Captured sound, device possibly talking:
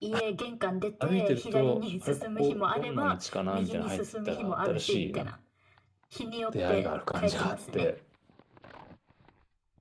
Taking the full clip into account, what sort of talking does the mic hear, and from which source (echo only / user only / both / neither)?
both